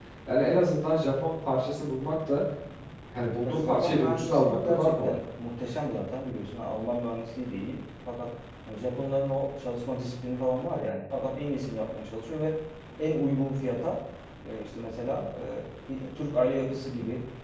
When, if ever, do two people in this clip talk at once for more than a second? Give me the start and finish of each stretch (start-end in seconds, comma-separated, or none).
3.4-5.2